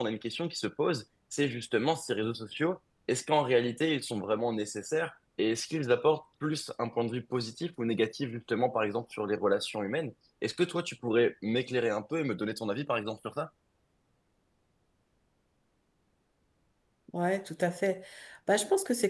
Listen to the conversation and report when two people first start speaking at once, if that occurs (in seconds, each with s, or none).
none